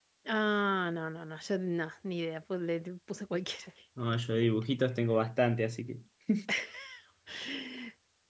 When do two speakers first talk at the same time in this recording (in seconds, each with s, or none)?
none